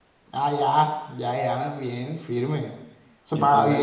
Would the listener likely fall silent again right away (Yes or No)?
No